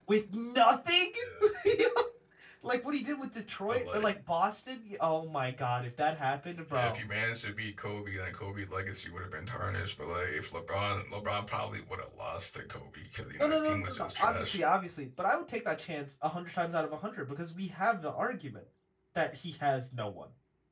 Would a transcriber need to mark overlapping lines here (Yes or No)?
Yes